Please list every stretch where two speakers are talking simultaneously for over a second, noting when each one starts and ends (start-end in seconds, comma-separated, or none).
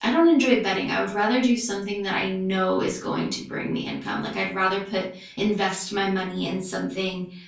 none